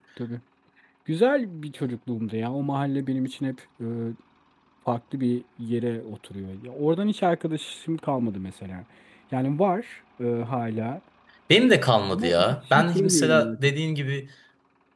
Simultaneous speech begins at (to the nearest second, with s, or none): 12 s